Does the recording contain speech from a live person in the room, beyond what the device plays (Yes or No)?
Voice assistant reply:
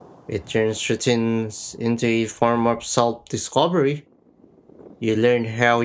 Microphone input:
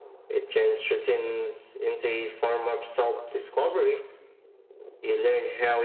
No